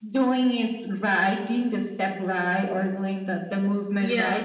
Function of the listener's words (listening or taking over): listening